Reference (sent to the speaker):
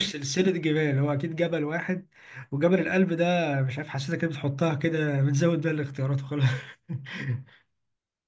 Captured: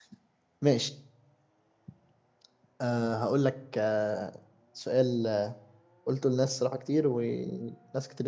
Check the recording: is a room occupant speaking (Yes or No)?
Yes